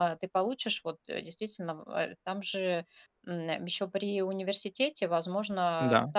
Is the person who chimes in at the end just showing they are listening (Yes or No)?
Yes